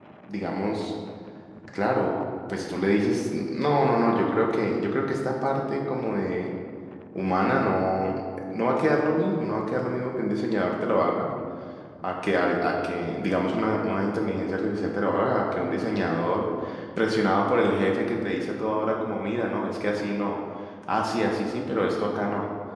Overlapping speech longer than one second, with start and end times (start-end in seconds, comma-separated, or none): none